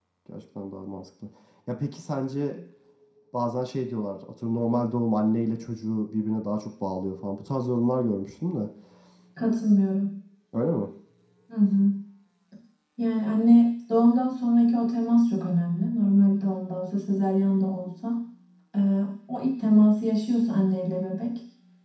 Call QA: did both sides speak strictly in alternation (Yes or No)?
Yes